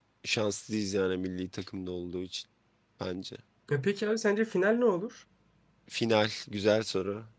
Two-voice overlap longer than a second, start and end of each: none

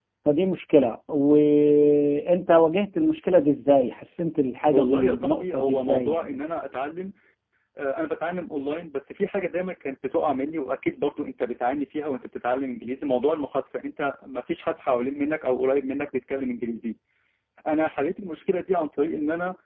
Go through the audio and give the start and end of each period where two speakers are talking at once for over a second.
4.7-6.4

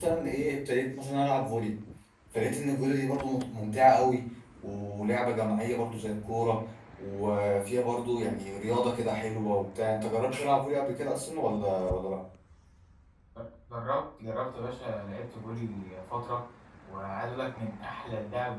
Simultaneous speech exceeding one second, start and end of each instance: none

